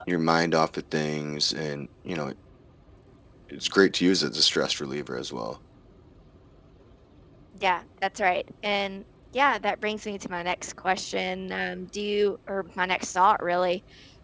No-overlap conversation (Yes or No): Yes